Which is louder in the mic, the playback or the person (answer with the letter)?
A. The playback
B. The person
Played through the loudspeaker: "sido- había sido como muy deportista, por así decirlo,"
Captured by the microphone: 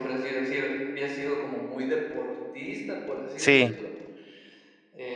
B